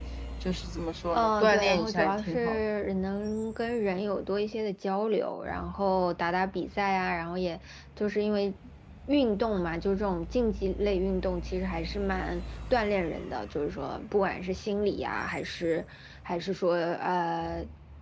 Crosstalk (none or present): present